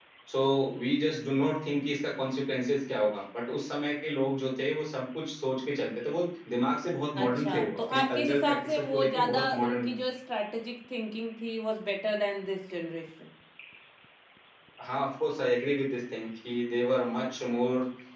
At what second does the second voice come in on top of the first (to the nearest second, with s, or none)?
7 s